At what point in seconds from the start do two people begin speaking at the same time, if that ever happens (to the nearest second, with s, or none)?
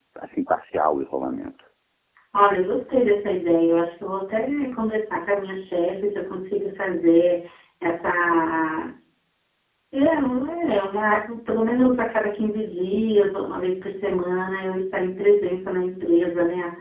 none